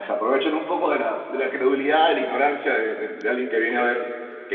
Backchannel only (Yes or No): Yes